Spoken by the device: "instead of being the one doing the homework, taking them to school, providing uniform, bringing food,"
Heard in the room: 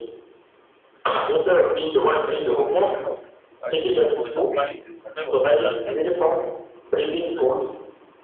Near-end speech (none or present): present